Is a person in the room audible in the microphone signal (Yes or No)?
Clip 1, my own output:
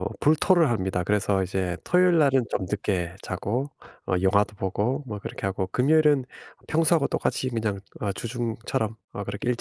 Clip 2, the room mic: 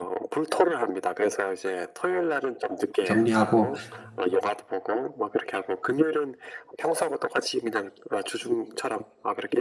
Yes